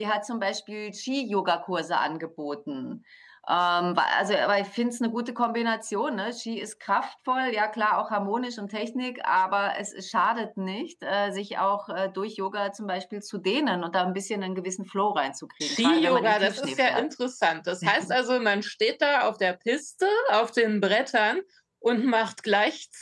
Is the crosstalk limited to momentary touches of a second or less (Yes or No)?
No